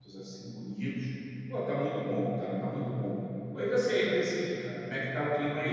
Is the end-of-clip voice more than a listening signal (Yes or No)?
Yes